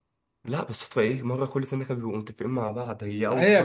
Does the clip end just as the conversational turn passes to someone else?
Yes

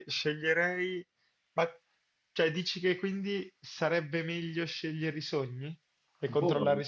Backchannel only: No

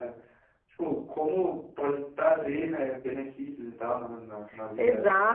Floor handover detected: Yes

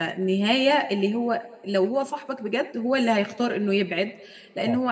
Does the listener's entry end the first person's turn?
No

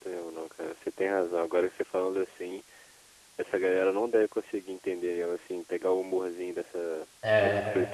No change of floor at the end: No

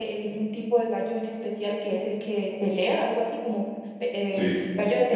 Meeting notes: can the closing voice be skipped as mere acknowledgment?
No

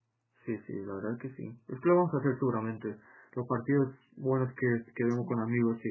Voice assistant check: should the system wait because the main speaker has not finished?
Yes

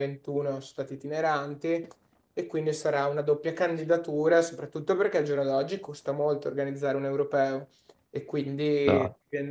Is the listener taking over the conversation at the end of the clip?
No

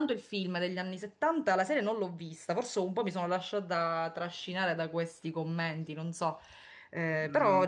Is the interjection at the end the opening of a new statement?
Yes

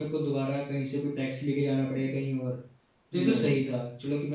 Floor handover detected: No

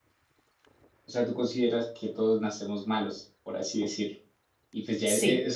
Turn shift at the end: No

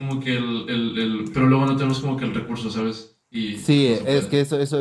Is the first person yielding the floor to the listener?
Yes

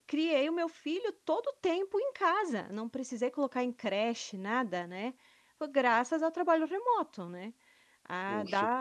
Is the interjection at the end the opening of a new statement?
No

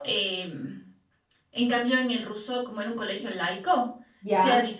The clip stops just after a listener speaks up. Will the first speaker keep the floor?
Yes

